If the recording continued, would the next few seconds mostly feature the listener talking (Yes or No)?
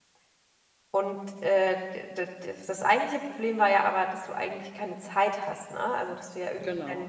No